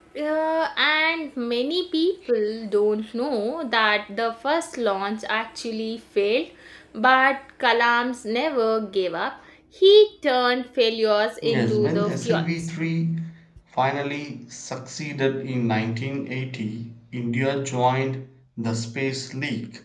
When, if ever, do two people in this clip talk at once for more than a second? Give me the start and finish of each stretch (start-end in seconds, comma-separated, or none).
11.4-12.7